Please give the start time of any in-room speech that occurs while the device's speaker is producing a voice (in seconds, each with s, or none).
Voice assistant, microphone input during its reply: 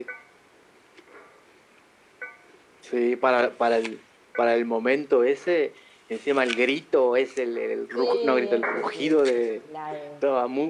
7.8 s